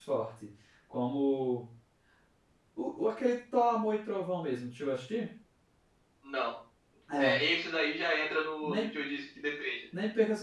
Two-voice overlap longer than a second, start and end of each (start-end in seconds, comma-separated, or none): none